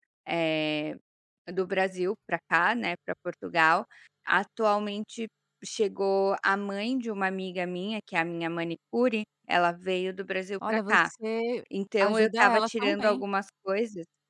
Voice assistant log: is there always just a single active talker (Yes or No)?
No